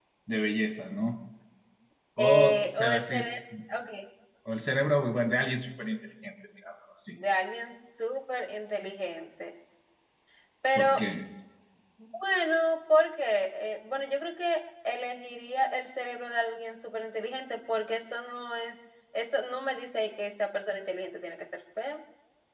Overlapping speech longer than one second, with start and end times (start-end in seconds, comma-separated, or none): 2.2-3.4